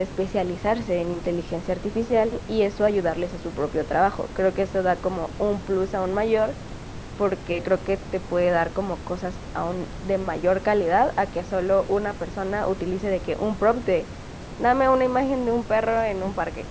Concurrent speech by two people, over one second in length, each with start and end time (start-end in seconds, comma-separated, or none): none